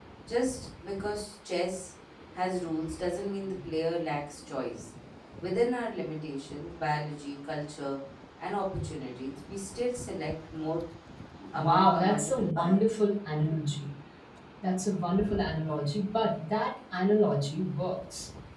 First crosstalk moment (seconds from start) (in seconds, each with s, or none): 11.6 s